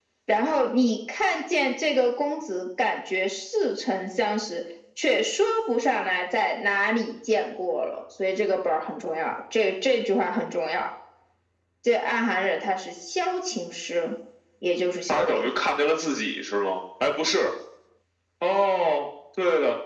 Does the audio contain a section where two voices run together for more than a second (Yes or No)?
No